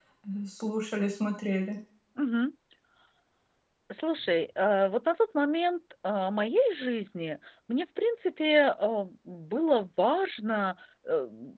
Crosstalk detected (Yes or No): No